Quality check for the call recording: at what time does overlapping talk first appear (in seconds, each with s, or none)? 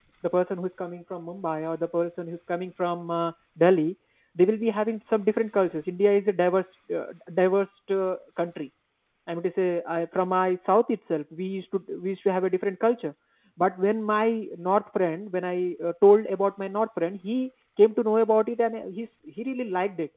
none